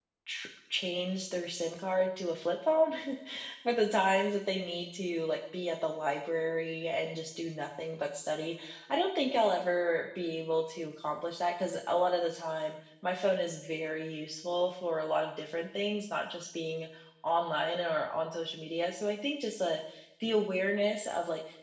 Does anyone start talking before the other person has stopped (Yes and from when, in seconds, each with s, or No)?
No